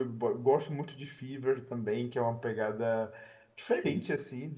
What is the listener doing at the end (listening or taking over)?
listening